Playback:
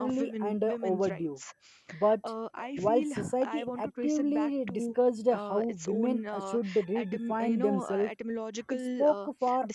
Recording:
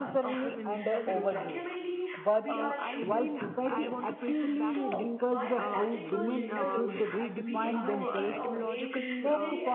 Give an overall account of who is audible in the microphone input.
both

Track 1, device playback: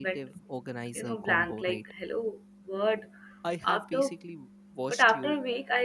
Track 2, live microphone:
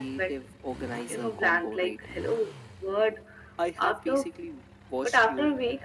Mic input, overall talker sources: echo only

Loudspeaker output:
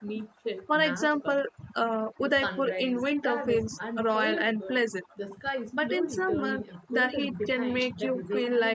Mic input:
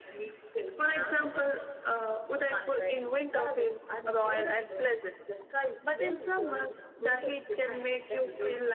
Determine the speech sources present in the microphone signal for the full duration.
echo only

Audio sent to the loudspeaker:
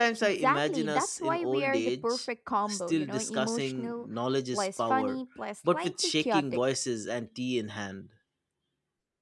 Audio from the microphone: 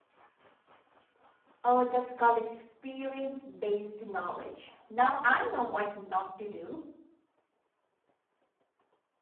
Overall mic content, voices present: user only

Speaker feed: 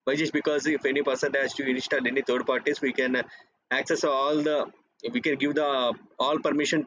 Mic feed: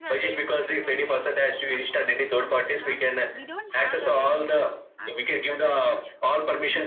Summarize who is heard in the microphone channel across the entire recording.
both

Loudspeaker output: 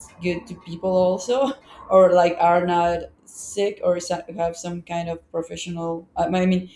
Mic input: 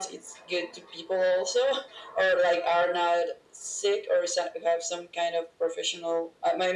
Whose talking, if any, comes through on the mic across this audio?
echo only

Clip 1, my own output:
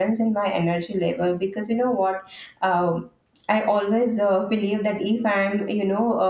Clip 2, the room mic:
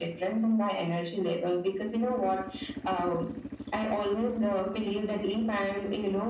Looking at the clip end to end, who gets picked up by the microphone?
echo only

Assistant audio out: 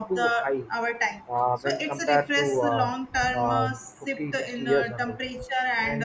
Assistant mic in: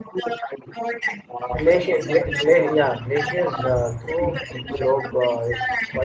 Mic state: both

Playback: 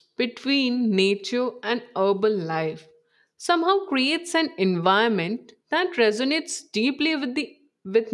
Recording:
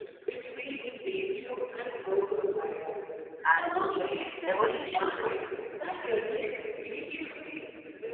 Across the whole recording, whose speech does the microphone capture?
both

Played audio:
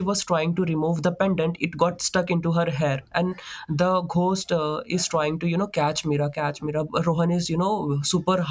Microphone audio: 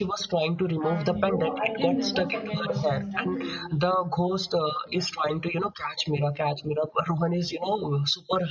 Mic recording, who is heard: both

